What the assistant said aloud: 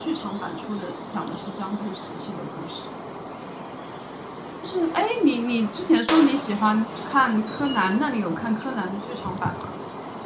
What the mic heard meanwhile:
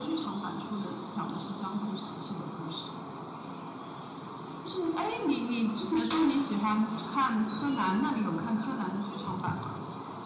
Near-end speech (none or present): none